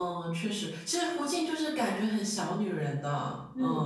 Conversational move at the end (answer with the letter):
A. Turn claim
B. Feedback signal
A